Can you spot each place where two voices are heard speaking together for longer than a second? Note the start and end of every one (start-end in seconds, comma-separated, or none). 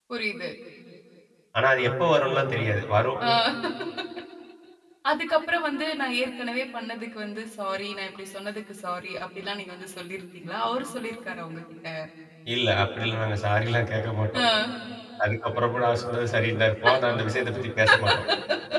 none